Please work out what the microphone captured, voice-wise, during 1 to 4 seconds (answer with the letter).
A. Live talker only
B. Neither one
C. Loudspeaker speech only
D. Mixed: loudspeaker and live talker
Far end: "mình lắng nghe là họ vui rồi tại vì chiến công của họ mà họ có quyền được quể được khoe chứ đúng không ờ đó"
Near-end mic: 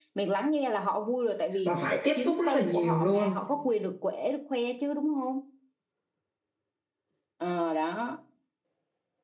D